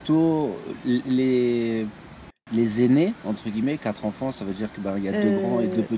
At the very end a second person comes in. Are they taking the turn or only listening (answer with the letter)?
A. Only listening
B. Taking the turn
B